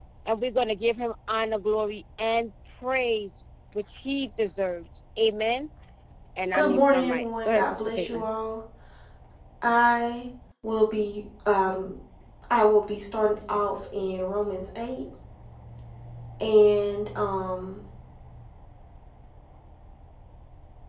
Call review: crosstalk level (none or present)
present